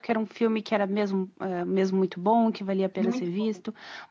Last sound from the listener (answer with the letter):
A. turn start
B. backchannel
B